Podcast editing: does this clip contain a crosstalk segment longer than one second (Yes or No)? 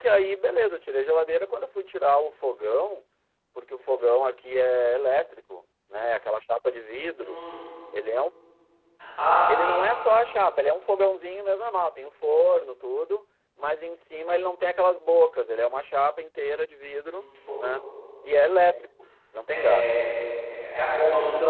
No